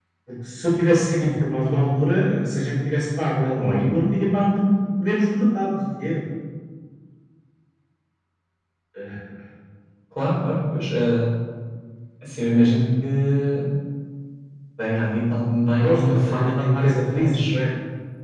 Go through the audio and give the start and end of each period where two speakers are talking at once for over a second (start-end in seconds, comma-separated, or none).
15.8-17.6